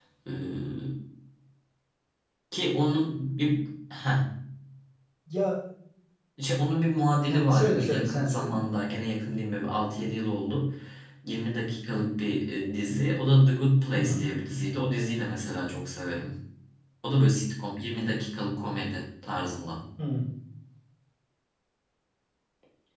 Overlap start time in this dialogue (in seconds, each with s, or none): 7.3 s